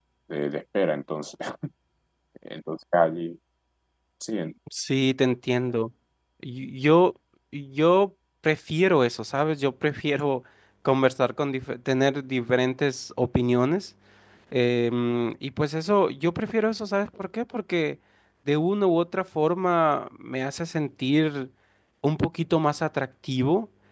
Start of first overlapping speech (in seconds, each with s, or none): none